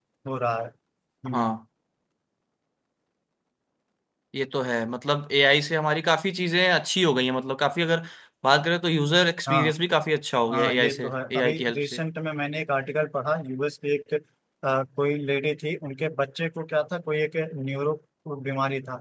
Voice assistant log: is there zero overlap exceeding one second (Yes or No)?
No